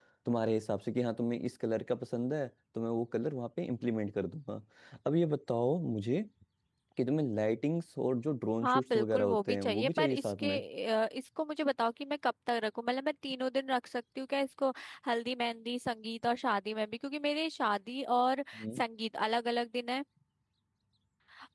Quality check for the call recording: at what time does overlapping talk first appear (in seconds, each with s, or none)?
8.6 s